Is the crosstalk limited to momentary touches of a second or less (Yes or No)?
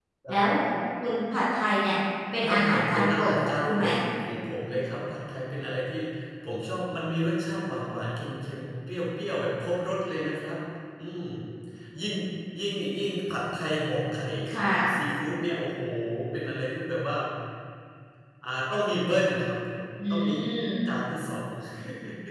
No